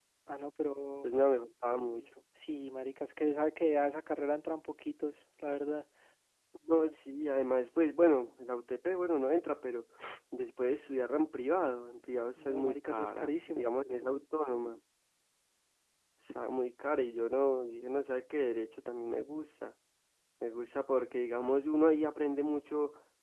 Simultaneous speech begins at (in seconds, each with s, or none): 12.4 s